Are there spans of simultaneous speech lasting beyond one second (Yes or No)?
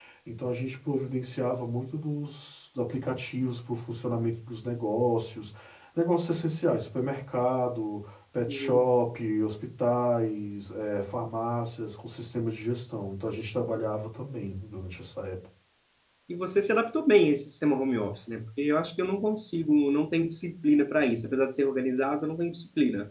No